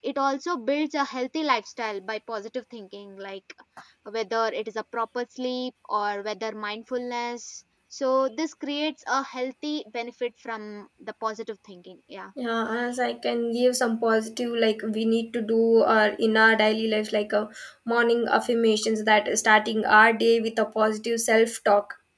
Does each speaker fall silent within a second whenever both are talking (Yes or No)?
Yes